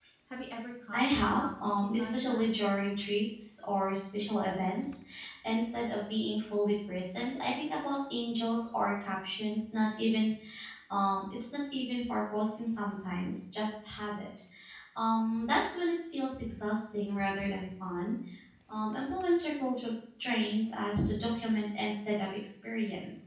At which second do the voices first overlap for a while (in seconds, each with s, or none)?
0.9 s